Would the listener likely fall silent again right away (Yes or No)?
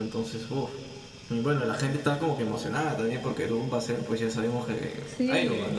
No